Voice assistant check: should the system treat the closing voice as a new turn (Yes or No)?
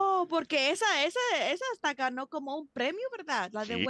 Yes